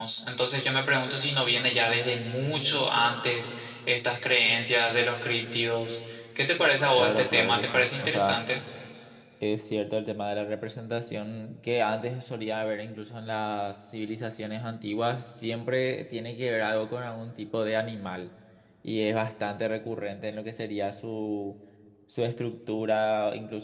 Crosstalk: present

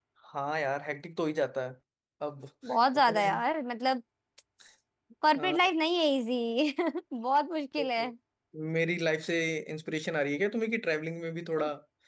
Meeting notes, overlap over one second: none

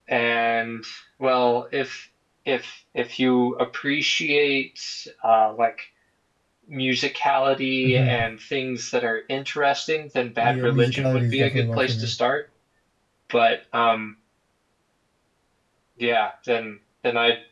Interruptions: present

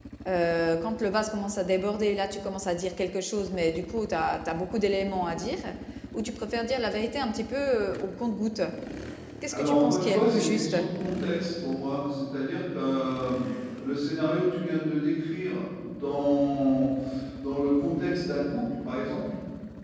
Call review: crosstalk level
present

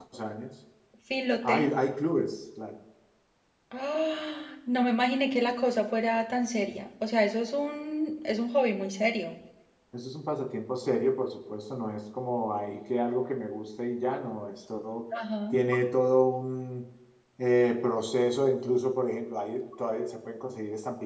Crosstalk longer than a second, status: none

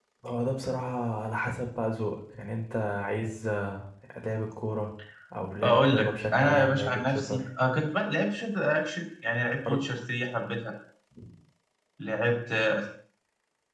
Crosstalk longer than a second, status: present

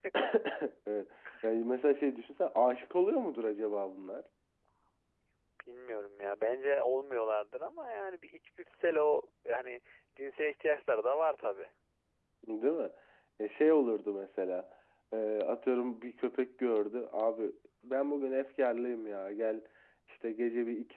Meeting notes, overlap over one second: none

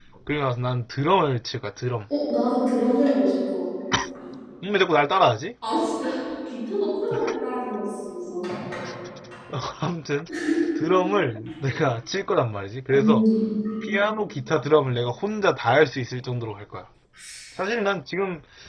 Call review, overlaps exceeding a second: none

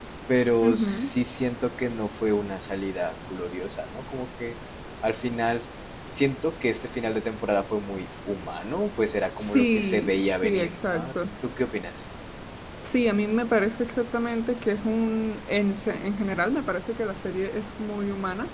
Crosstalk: present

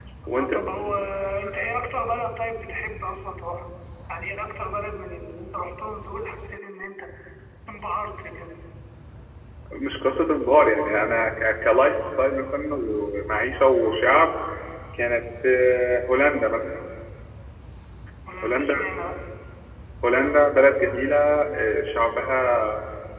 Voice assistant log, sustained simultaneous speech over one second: none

